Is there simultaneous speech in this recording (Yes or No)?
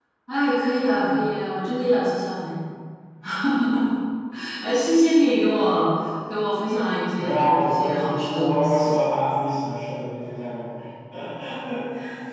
Yes